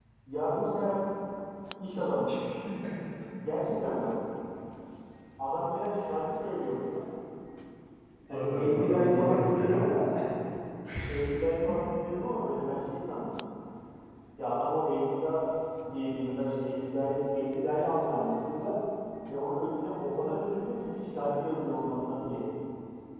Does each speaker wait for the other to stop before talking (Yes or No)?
No